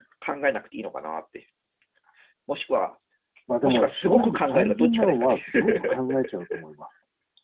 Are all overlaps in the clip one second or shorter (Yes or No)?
No